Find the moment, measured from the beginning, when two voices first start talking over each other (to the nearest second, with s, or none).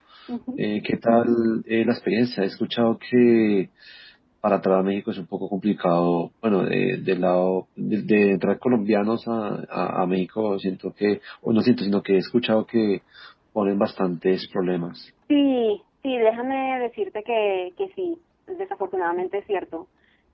none